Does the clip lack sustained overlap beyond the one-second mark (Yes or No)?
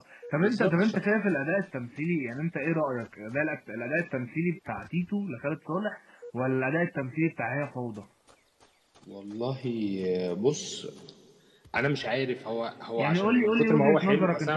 No